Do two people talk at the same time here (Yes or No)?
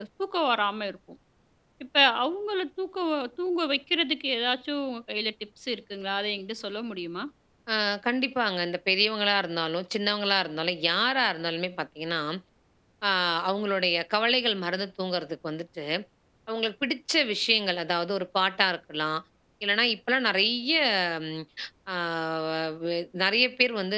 No